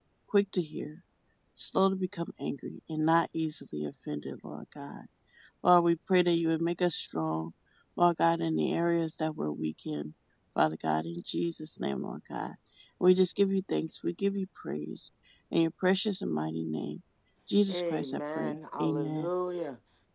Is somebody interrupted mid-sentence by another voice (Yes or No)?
Yes